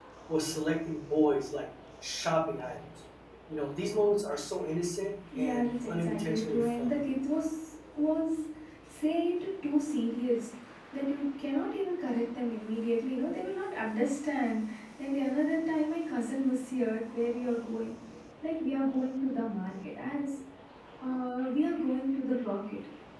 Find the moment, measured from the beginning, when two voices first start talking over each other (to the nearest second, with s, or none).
5 s